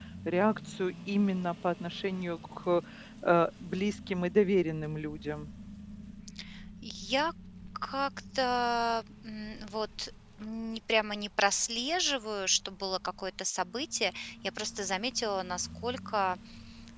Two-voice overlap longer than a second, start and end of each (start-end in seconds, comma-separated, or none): none